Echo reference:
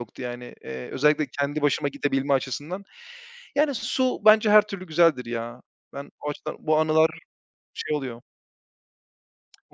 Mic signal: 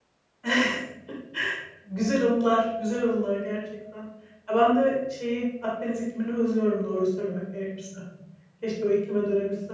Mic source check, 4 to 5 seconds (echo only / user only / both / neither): user only